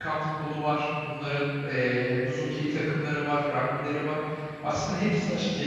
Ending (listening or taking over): listening